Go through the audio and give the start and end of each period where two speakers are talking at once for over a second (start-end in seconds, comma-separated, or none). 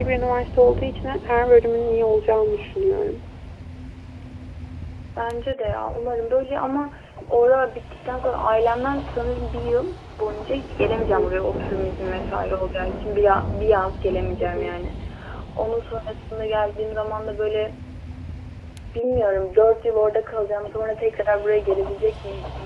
none